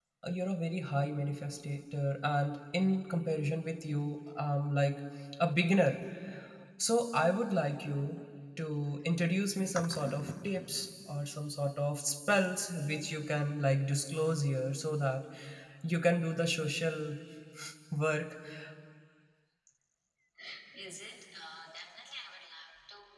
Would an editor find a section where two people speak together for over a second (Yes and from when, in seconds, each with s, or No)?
No